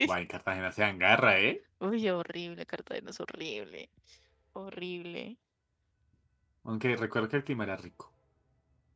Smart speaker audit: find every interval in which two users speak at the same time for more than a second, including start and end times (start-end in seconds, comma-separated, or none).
none